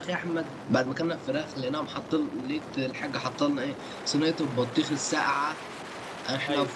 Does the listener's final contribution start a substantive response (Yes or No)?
No